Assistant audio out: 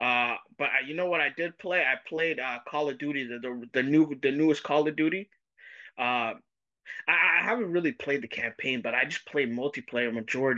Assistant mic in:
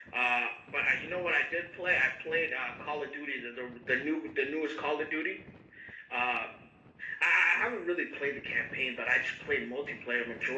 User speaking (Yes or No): No